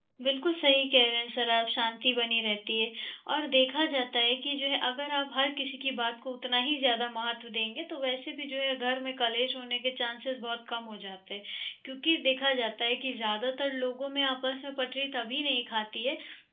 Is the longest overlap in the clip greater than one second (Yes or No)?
No